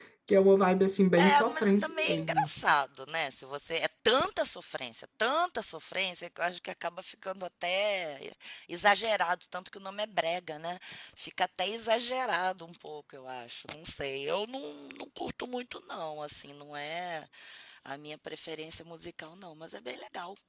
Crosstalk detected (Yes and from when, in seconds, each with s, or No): Yes, from 1.2 s